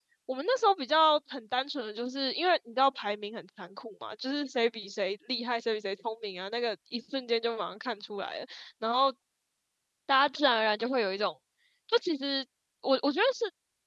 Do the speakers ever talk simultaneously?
No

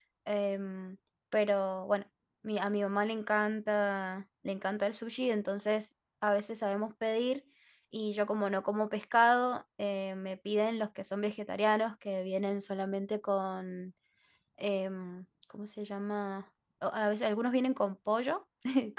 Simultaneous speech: No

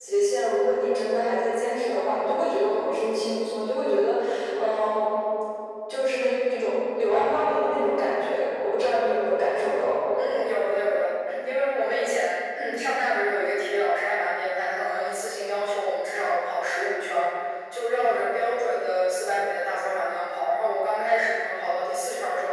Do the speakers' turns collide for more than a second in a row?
No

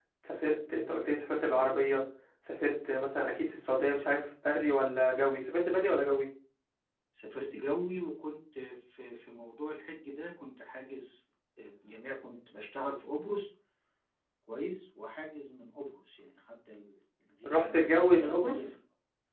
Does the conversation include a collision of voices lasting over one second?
Yes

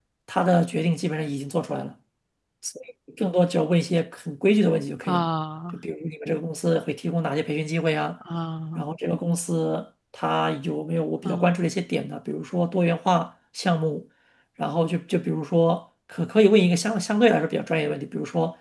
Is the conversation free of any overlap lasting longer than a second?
Yes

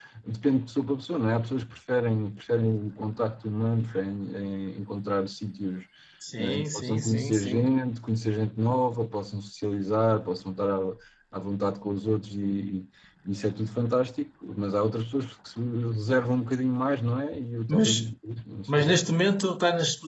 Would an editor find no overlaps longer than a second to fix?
No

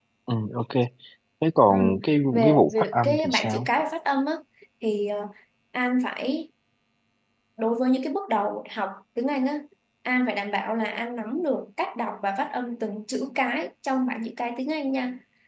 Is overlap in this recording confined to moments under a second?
No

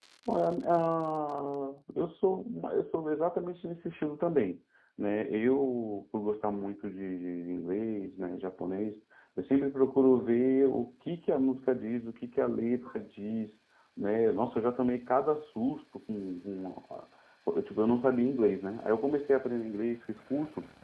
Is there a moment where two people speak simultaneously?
No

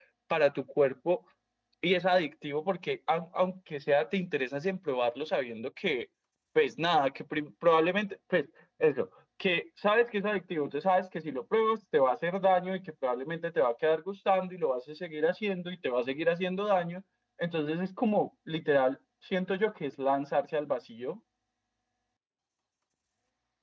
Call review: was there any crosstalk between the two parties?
No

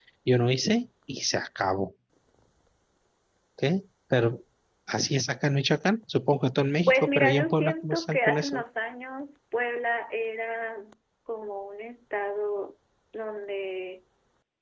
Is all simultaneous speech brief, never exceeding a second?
No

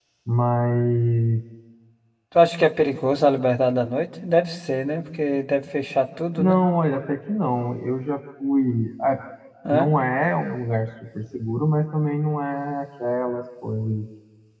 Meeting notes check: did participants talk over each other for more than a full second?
No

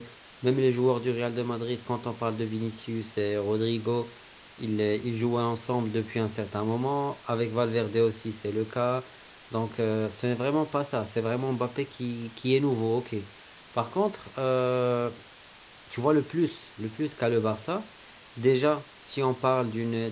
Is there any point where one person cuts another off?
No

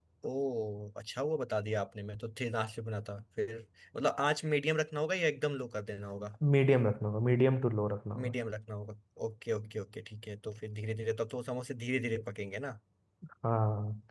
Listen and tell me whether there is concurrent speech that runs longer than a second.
No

